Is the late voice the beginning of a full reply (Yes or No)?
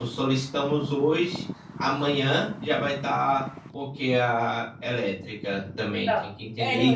Yes